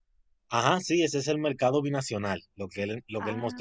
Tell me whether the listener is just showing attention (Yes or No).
Yes